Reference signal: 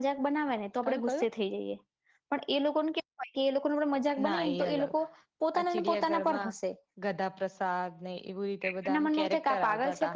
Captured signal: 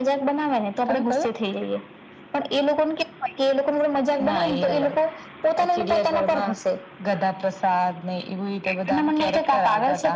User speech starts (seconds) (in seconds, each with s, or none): none